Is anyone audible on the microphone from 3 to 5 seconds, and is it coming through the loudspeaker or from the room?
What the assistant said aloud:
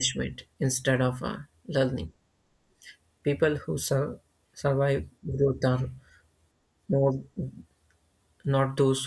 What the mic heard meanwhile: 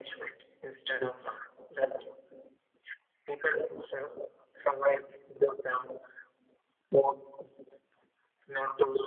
echo only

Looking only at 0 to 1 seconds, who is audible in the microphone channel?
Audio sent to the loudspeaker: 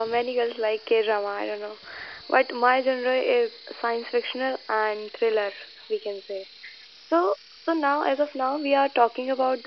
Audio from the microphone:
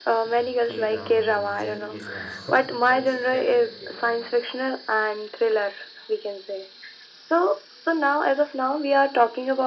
both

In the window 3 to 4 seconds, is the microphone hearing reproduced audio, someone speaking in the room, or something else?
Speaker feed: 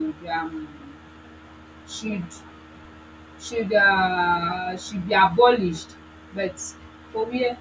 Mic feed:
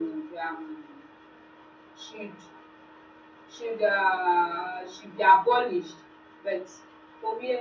echo only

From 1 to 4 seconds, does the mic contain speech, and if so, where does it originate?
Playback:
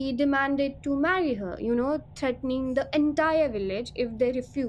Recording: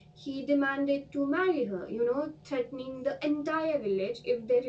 echo only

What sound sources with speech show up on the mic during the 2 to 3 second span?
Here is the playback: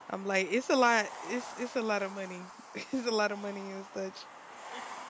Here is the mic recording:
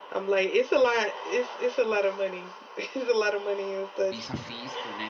echo only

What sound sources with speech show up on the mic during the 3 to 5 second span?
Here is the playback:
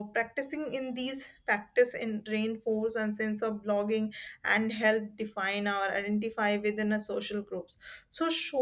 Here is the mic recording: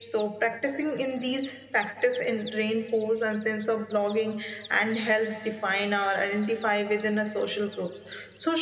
echo only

